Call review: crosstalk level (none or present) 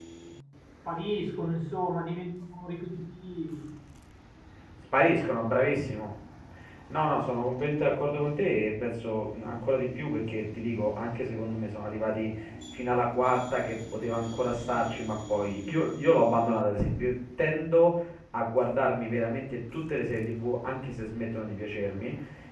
none